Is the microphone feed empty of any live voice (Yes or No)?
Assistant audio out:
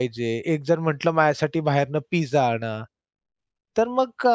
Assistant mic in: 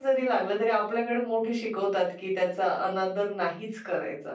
No